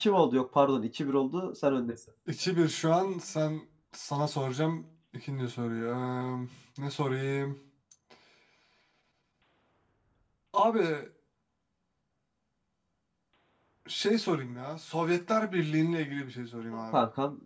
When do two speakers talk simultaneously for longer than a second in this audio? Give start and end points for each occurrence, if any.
none

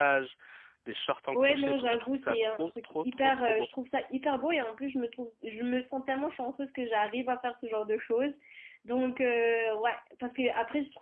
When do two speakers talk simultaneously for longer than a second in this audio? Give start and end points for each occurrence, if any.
1.3-3.7

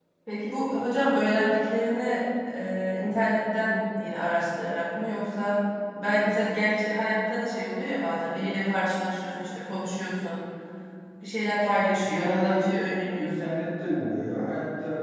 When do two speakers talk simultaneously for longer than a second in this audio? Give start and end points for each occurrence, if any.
12.0-13.6

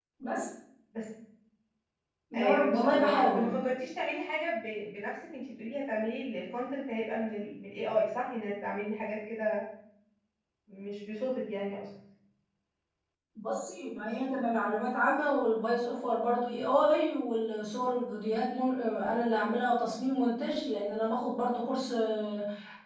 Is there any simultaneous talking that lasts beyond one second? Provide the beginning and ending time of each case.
2.3-3.5

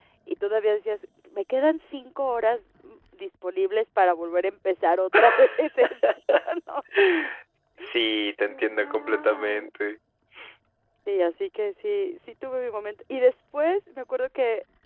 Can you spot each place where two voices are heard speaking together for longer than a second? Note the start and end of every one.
8.5-9.7

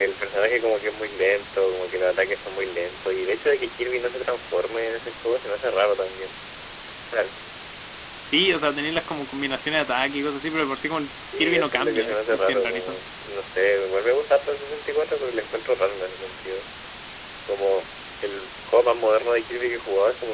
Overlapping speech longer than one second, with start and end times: 11.4-13.0

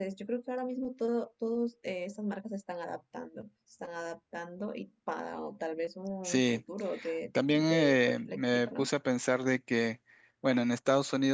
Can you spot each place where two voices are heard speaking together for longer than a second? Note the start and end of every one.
7.5-8.9

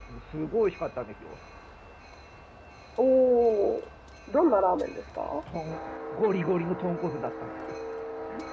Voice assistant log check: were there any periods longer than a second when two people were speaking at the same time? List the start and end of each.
none

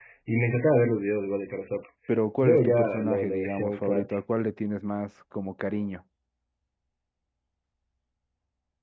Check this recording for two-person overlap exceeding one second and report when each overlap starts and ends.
2.4-4.2

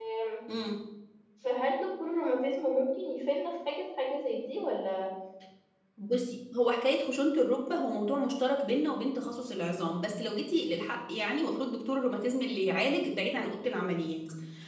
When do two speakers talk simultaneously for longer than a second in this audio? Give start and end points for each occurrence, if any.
none

